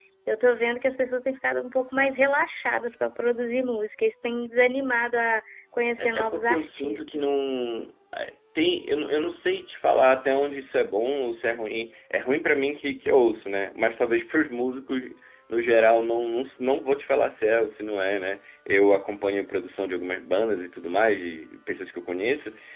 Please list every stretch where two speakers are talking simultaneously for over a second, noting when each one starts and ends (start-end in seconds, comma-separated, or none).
6.0-7.2